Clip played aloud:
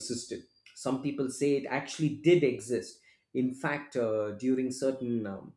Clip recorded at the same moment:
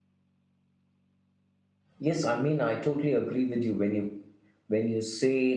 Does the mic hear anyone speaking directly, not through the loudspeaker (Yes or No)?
Yes